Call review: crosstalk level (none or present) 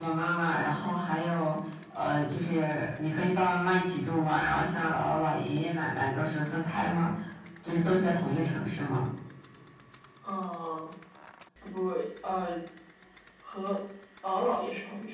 none